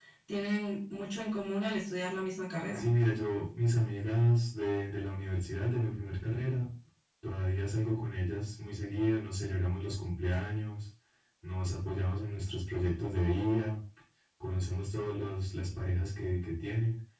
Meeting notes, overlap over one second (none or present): none